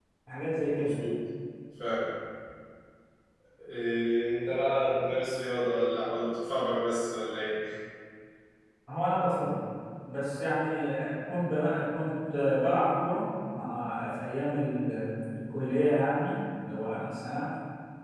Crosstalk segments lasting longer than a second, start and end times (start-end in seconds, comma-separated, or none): none